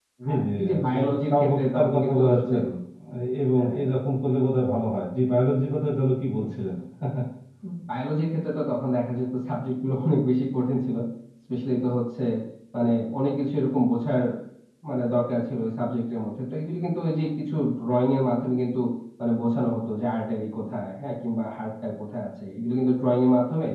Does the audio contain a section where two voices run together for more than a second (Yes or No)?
Yes